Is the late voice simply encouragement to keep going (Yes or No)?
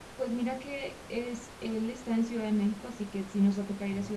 Yes